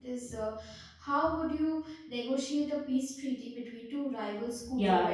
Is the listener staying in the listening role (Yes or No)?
No